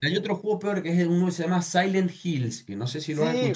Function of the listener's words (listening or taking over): taking over